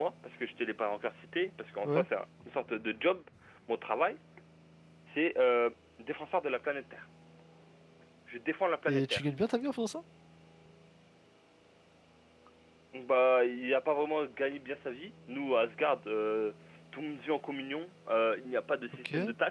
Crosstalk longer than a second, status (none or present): none